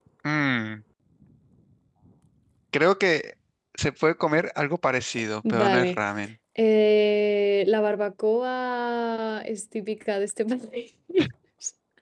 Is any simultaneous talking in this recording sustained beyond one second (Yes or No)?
No